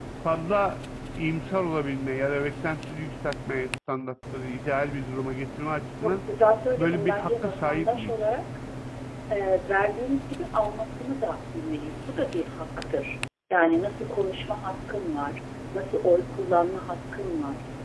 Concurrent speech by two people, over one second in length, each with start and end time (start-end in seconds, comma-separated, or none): 6.8-8.1